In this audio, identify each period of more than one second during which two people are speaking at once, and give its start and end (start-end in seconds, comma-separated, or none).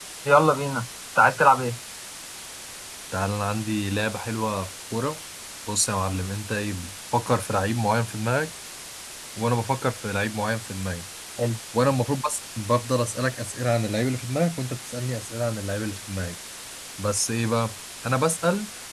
none